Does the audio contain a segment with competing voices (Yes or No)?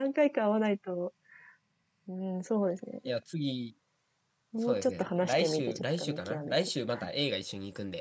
Yes